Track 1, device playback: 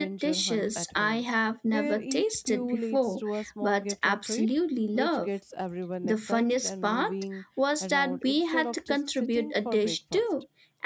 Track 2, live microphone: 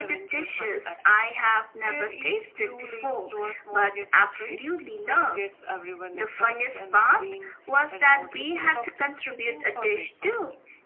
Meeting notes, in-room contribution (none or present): none